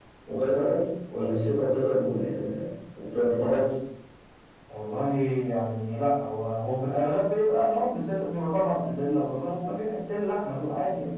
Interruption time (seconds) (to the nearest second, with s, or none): none